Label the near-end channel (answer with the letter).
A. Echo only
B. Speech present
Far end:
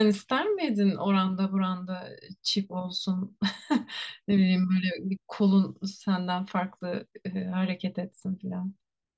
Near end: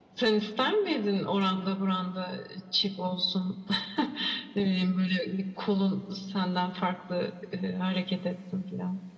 A